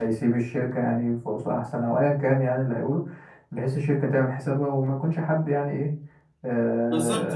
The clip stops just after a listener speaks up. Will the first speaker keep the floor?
No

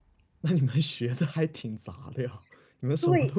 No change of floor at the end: Yes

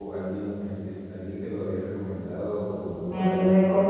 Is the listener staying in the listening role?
No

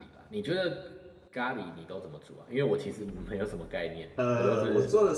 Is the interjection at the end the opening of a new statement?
Yes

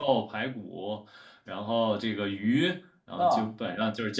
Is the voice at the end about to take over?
No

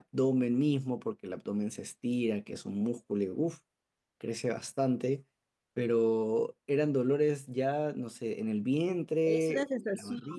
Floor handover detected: Yes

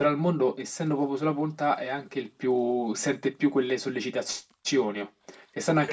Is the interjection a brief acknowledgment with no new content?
Yes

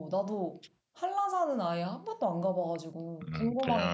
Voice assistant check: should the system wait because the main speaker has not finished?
No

